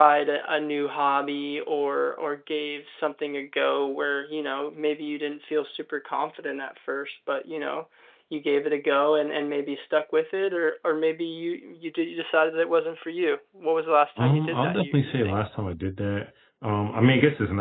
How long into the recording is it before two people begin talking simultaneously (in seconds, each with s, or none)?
14.2 s